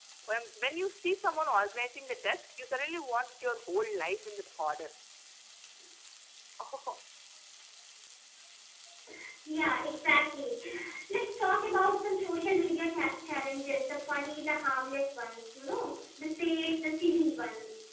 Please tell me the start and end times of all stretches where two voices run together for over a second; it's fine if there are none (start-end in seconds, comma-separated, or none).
none